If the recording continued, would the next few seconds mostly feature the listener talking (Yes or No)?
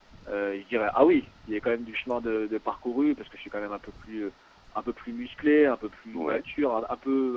No